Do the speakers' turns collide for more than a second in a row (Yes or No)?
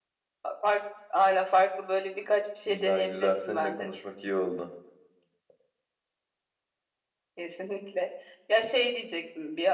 Yes